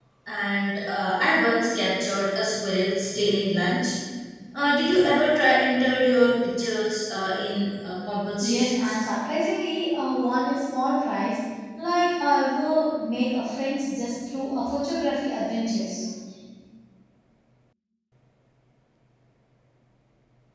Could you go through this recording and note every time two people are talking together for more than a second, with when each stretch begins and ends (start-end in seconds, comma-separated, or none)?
none